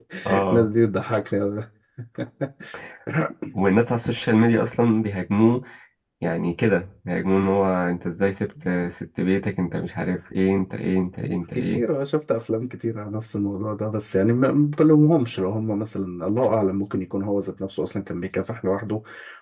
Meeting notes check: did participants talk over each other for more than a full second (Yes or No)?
No